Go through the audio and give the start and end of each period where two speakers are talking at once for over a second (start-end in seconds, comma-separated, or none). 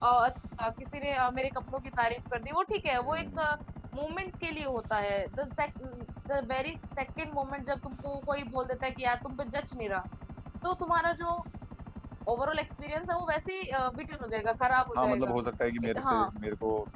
none